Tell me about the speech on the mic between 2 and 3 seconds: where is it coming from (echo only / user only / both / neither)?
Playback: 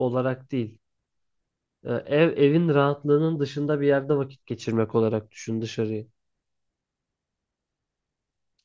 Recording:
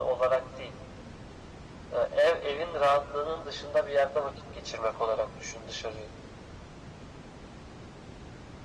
echo only